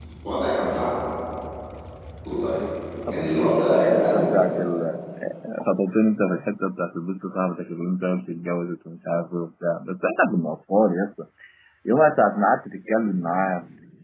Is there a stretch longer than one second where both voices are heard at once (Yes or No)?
Yes